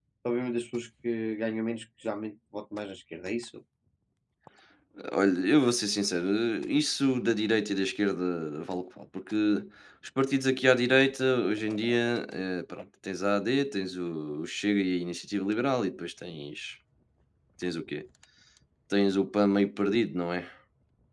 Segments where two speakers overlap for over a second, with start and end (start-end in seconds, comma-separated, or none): none